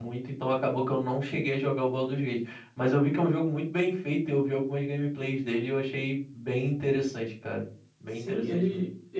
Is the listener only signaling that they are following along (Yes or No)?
No